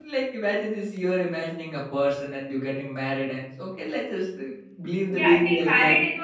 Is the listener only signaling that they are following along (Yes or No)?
No